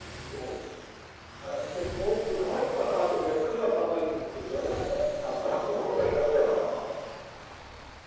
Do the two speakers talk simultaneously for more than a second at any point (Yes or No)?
Yes